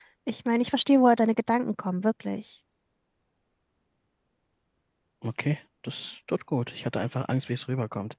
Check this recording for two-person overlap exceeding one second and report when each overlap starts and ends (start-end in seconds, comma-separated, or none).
none